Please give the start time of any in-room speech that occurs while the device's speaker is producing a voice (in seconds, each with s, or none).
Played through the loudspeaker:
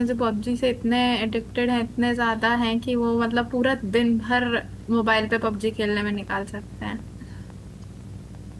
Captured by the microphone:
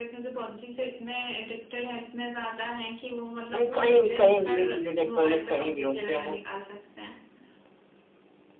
3.5 s